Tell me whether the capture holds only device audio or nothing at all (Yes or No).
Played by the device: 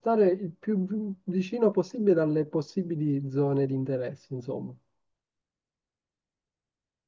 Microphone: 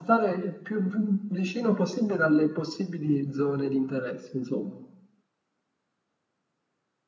Yes